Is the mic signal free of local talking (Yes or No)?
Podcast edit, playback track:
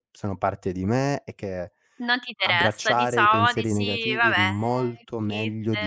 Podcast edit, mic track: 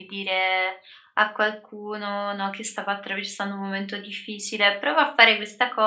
No